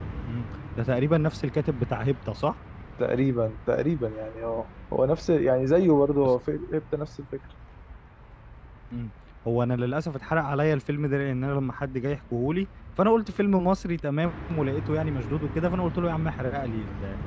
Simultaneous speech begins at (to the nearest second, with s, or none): none